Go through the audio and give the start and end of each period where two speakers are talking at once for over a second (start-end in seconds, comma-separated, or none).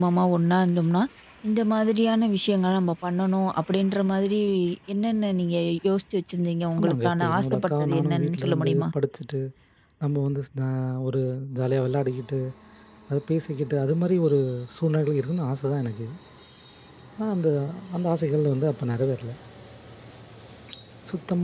6.8-8.8